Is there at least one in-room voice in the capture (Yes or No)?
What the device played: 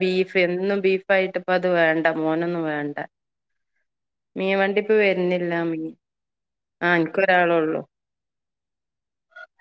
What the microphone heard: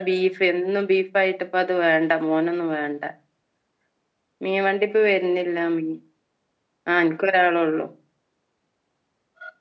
No